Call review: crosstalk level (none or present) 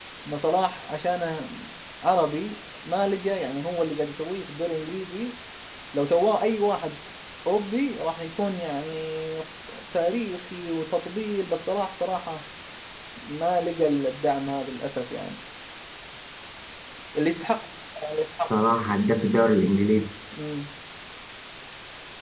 none